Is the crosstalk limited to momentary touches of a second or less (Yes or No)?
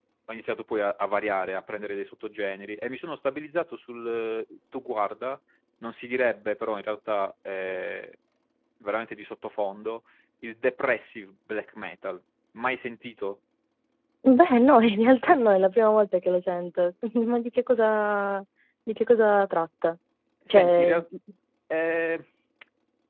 Yes